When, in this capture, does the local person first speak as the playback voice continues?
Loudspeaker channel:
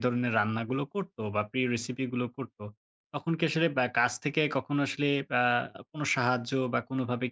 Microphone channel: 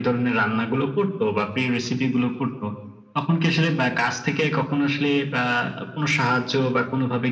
none

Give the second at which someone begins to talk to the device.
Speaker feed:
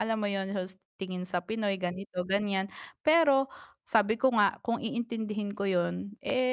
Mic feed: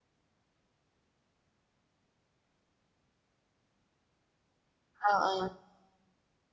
5 s

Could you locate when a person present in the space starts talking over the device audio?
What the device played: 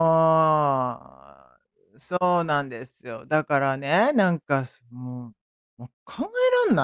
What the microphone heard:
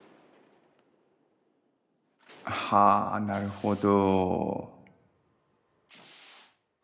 2 s

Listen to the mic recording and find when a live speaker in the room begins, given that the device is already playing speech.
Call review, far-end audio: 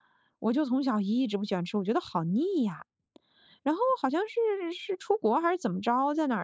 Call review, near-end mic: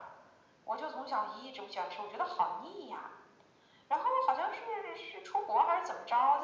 none

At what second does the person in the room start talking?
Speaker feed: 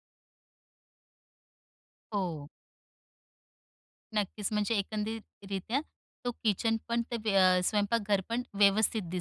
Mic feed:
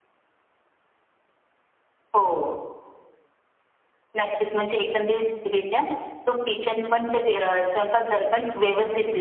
none

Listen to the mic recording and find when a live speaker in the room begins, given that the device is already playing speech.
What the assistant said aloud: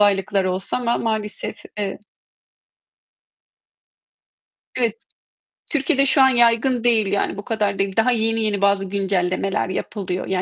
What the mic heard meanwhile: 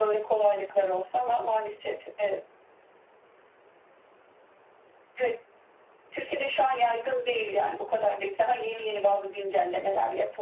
none

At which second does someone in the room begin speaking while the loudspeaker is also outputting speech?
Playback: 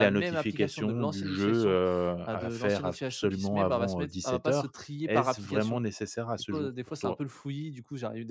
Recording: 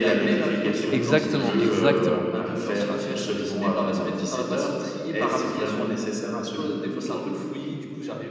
1 s

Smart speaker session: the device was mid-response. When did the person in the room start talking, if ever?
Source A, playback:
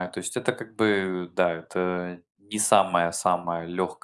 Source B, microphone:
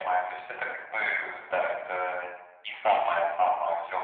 none

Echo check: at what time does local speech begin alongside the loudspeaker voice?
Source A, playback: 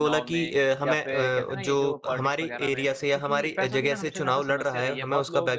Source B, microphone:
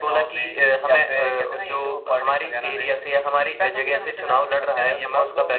none

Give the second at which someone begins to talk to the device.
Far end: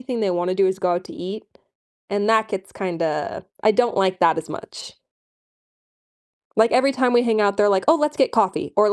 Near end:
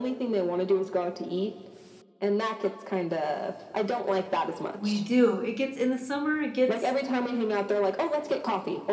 5 s

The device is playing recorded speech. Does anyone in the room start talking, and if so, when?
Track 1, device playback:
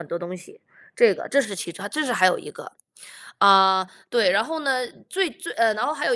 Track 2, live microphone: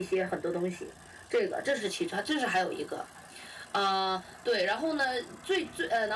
none

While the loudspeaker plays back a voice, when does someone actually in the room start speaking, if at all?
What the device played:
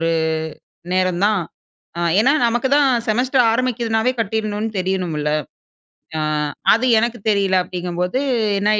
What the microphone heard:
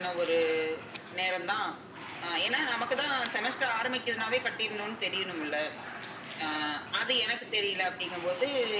none

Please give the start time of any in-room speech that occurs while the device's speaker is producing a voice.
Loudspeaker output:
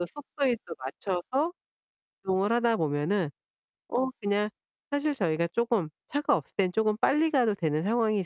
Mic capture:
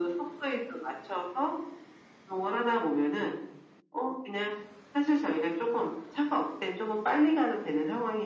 none

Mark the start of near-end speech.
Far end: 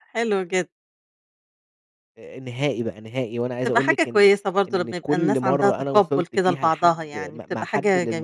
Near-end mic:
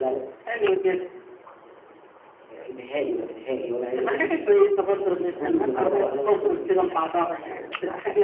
none

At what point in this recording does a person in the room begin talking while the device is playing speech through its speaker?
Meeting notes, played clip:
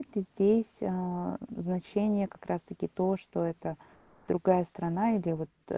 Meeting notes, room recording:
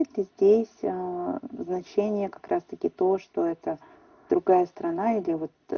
none

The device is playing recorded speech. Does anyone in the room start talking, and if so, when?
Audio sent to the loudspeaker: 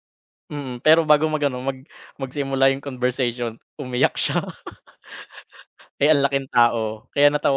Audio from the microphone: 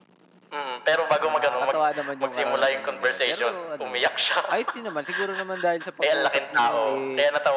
1 s

